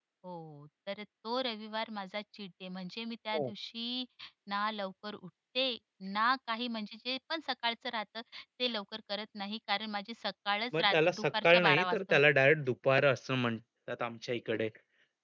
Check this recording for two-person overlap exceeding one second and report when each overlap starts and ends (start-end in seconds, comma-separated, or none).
10.8-12.2